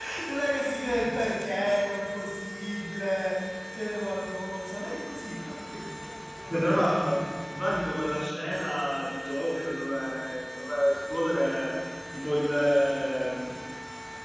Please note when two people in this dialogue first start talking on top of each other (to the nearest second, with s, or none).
none